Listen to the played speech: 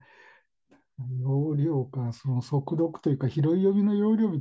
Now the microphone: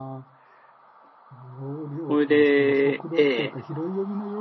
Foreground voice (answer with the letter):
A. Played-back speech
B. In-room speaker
B